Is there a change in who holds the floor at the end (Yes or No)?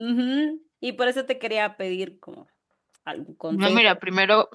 Yes